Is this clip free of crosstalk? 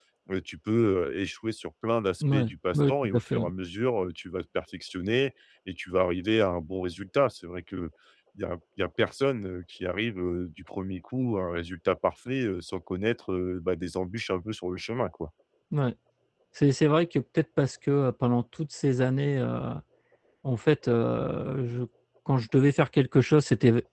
No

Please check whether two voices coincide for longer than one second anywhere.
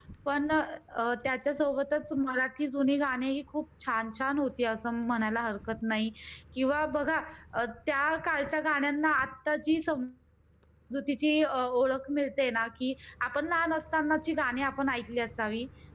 No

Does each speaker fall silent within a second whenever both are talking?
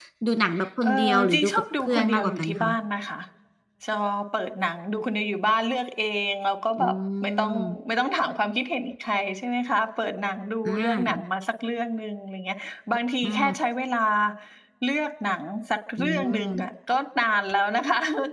No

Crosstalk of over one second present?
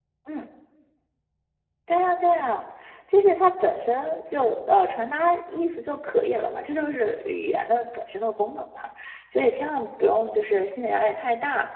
No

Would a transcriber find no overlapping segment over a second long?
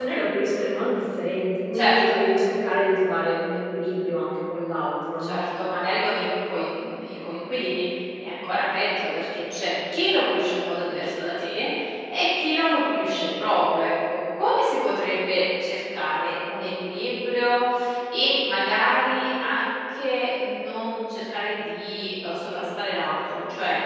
Yes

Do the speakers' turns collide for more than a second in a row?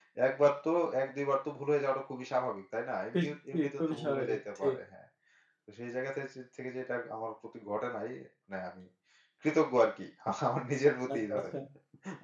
Yes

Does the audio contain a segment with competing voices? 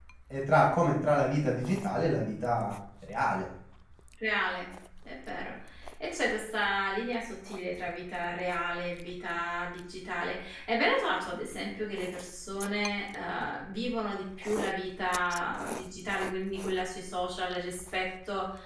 No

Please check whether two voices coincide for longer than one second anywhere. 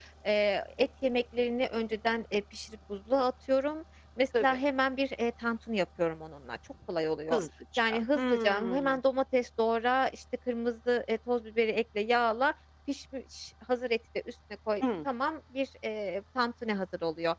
Yes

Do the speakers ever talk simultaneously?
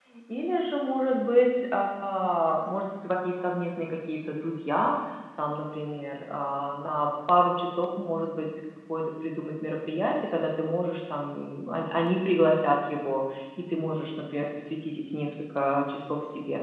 No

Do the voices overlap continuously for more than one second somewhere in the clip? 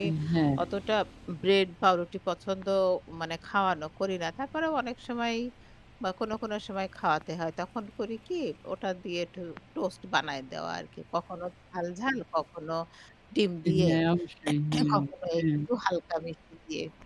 No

